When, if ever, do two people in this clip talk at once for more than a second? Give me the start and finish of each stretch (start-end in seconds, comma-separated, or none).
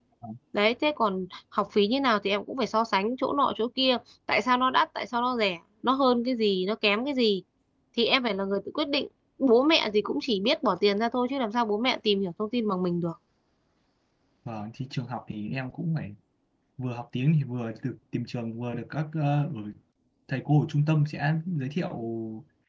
none